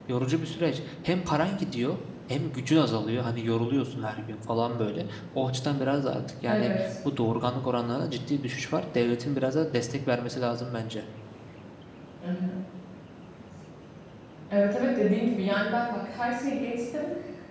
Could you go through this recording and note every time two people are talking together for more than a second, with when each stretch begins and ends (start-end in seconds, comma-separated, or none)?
none